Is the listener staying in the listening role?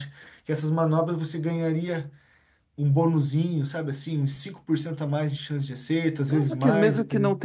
No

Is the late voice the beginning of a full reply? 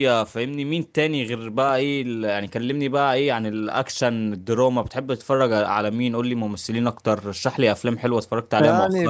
Yes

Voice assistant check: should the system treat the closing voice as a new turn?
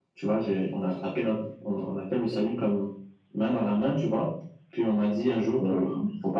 No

